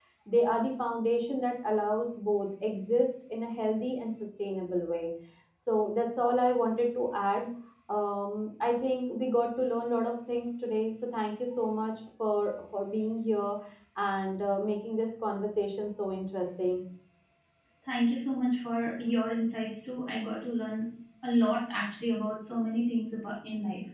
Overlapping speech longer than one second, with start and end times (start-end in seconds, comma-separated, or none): none